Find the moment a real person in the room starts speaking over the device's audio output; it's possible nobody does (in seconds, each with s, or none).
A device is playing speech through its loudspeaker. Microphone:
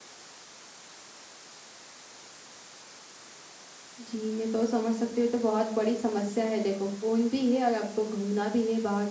4.0 s